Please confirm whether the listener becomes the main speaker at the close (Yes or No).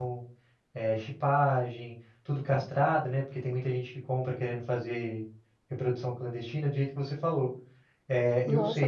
Yes